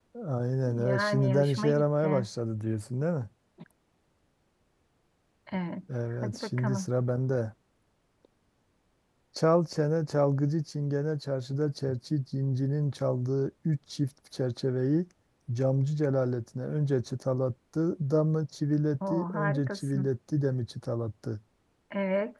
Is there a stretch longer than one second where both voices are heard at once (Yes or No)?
Yes